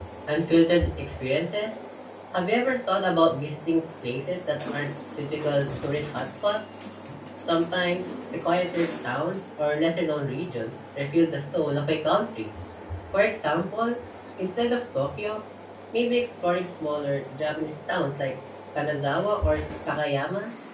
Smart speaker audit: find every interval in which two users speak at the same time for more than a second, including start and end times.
none

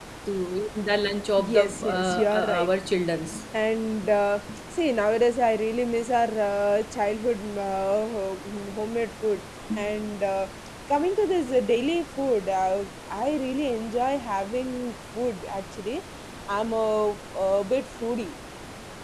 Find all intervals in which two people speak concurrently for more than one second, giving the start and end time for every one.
1.4-2.7

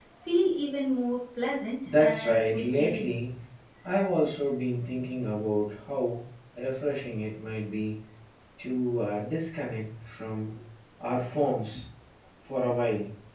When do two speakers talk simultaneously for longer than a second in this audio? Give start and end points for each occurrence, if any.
1.9-3.1

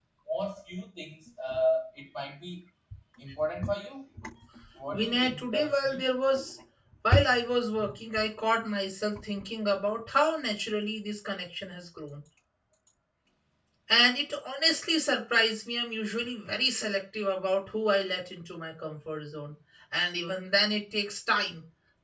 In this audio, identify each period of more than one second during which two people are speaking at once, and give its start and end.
4.9-6.1

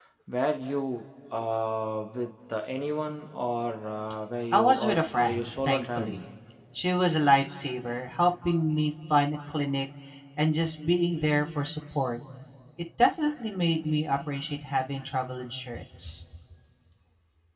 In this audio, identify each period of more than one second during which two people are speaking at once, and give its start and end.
4.5-6.2

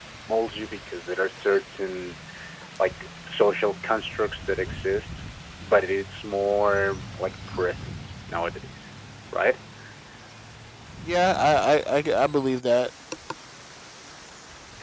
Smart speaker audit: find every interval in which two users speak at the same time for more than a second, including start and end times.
none

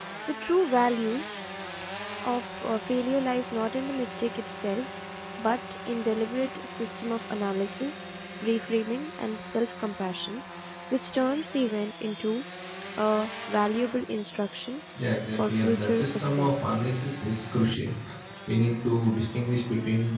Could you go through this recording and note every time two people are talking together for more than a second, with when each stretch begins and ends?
15.5-16.8

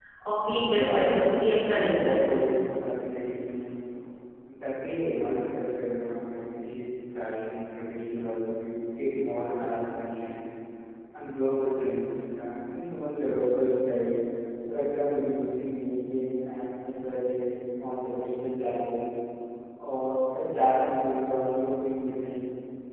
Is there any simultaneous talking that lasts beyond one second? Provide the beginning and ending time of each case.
0.7-2.2

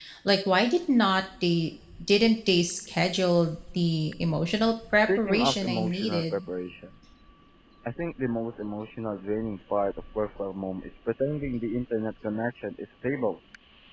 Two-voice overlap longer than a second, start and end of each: 5.2-6.4

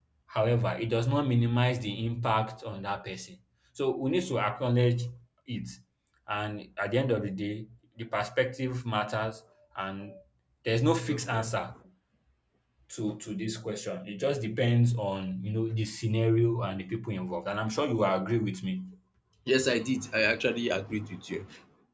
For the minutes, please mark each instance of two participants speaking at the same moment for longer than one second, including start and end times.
none

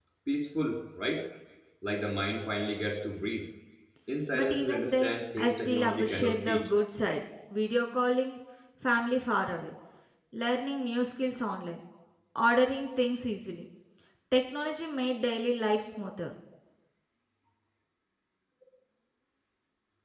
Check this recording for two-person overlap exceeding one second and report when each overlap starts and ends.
4.3-6.7

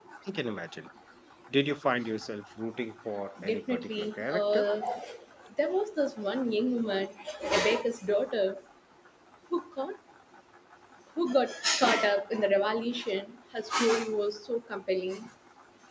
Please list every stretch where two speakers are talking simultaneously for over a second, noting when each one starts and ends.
3.5-4.7

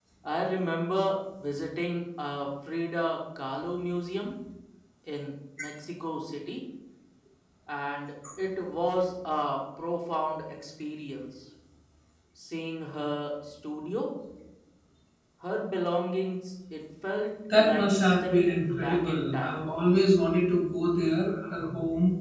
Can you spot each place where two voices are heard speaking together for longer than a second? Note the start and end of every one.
17.6-19.6

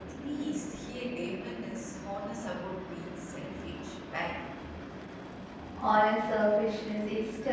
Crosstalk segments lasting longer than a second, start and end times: none

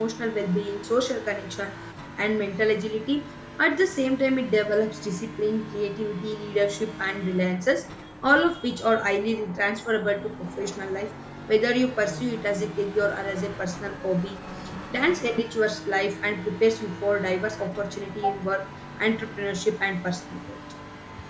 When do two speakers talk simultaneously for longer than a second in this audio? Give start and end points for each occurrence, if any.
none

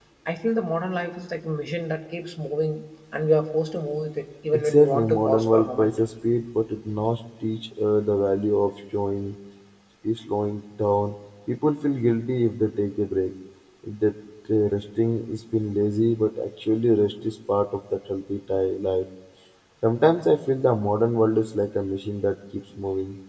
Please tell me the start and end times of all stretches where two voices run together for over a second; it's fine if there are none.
4.5-6.0

